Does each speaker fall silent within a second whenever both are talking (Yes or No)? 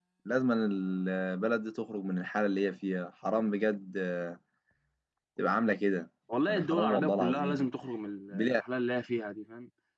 No